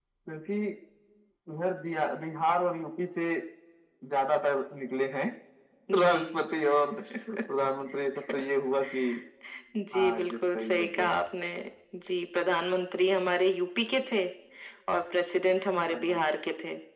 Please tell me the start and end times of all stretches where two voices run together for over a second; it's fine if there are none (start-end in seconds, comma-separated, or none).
9.9-11.2